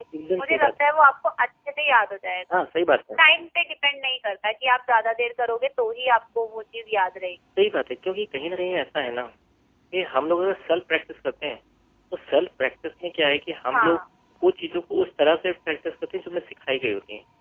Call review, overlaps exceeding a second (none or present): none